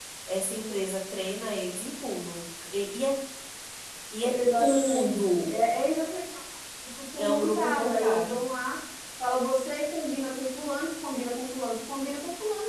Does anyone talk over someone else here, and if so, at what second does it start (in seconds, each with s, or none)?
4.2 s